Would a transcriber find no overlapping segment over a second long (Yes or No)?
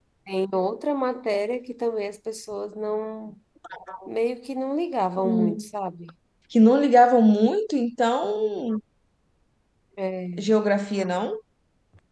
Yes